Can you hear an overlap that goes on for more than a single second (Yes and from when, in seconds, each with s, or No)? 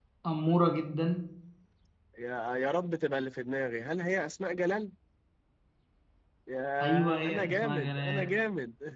Yes, from 6.8 s